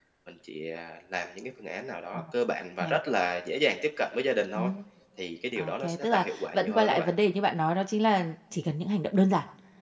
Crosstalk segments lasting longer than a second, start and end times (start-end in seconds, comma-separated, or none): 5.5-7.1